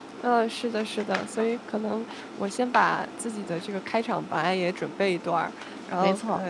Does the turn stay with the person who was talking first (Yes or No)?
Yes